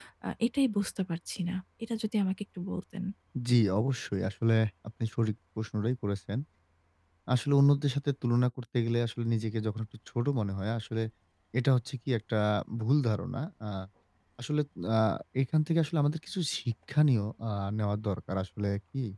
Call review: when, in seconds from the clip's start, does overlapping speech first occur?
none

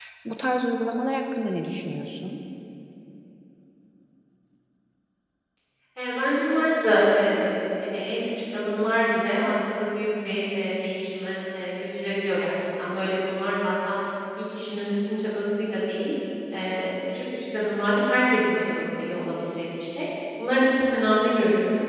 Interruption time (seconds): none

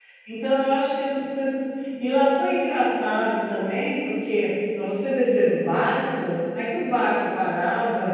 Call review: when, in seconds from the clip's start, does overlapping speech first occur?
none

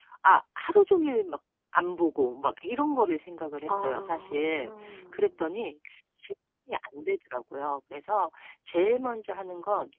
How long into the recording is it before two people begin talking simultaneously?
4 s

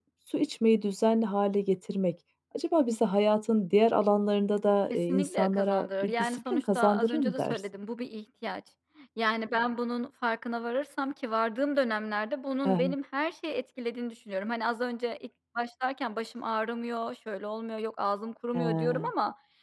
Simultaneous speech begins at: 5 s

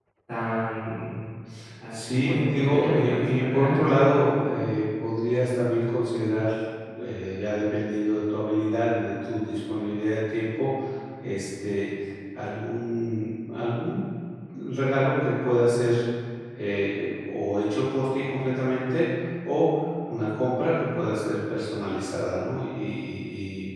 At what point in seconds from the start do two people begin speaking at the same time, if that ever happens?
2 s

